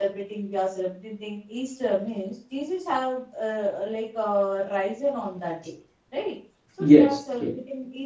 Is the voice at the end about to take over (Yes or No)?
No